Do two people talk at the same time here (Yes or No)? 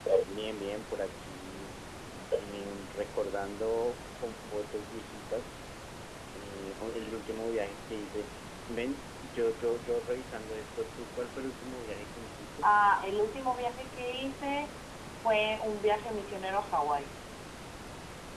No